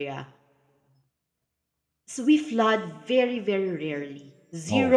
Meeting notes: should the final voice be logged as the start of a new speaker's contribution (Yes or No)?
No